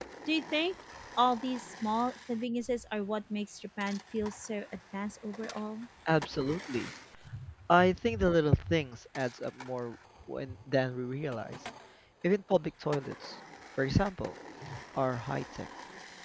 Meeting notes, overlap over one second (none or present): none